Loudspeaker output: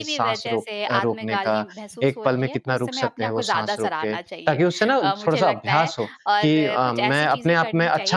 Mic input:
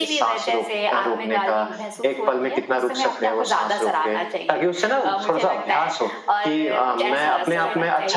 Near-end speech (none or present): present